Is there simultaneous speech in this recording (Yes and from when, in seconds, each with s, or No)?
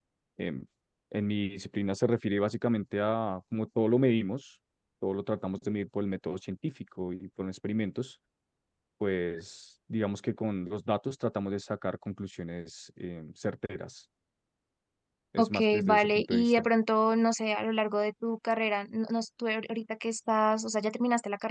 Yes, from 15.4 s